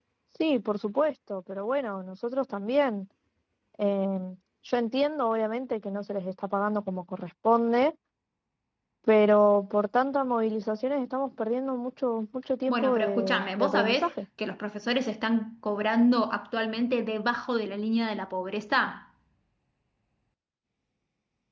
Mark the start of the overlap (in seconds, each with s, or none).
12.7 s